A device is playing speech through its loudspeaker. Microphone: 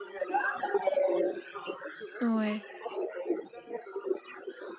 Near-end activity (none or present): present